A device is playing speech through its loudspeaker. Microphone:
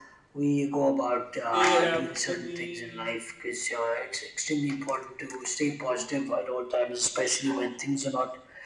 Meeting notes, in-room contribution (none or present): present